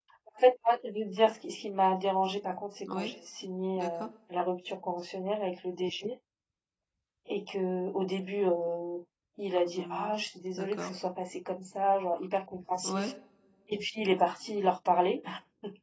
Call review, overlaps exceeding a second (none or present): none